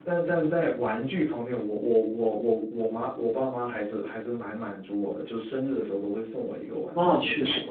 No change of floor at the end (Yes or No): No